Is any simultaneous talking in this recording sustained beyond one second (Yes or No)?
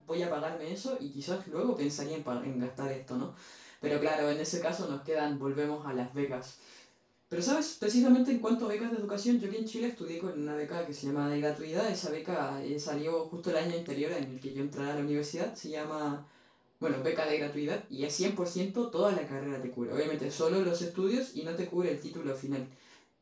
No